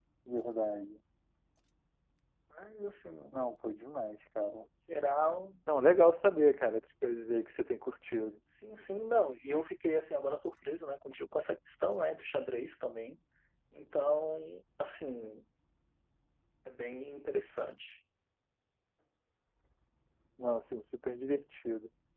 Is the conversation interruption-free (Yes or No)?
Yes